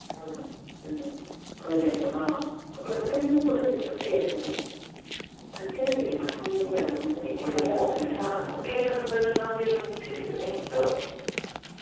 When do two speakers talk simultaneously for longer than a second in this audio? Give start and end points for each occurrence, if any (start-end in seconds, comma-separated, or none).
6.6-8.9